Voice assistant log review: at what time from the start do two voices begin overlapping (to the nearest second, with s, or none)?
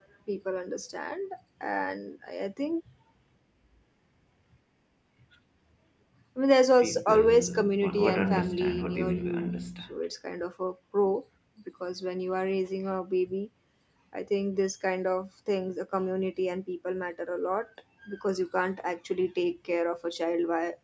7 s